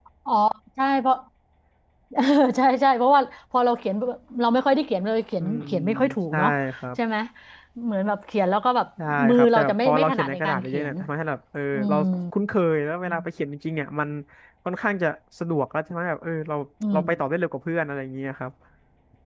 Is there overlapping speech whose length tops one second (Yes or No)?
Yes